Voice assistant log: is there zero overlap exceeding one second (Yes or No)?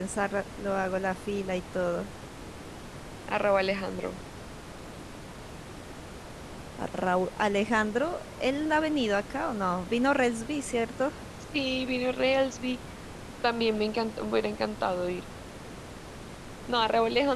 Yes